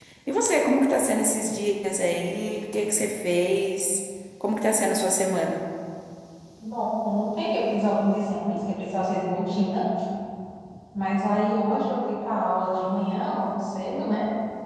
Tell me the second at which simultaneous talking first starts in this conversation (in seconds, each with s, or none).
none